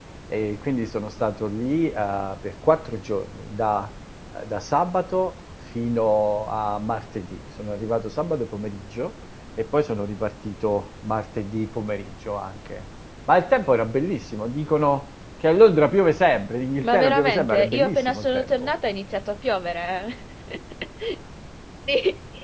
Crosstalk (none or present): present